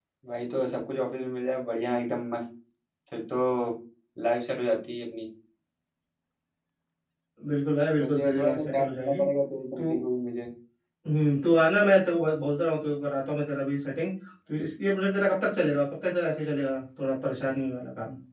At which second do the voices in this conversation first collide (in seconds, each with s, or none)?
8.0 s